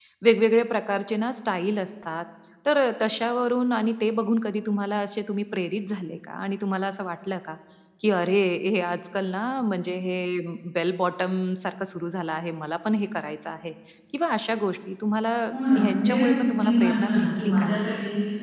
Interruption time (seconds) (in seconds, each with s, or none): 15.8 s